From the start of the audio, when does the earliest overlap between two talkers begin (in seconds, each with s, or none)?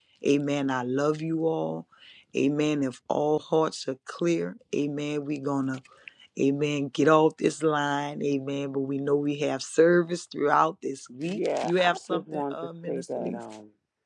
11.2 s